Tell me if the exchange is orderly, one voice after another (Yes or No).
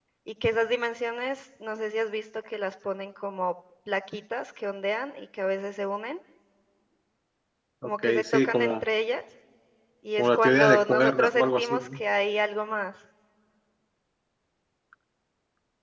No